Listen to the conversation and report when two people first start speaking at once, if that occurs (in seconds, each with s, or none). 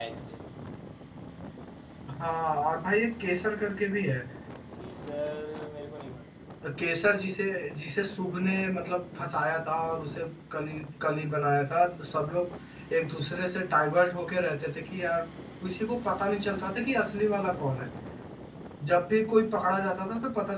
none